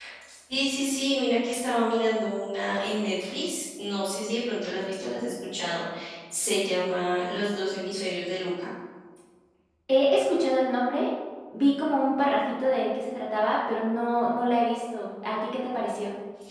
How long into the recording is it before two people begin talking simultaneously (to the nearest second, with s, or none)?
none